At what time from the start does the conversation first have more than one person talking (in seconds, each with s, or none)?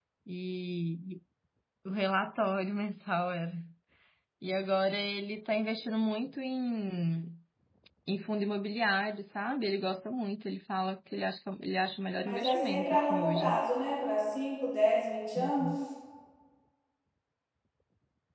12.2 s